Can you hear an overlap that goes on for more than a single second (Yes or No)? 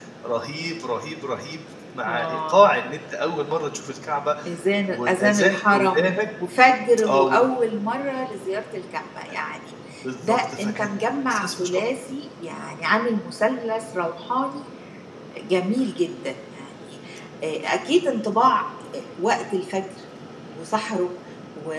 Yes